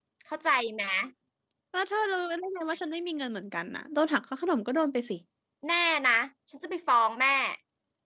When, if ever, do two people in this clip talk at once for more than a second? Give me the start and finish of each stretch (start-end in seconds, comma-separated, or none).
none